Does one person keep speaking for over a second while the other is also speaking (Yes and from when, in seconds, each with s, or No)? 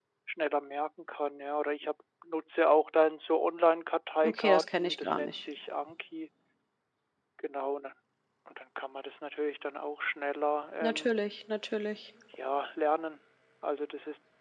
Yes, from 4.2 s